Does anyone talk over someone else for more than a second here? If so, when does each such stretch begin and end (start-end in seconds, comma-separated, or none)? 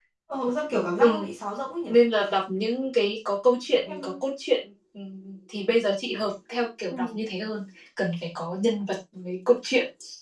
none